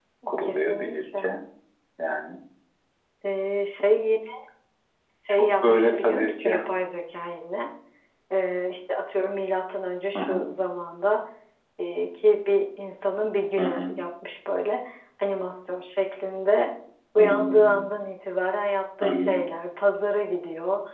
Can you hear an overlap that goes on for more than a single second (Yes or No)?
Yes